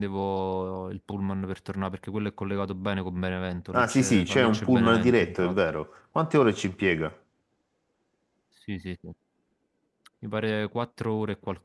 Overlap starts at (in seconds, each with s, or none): 3.7 s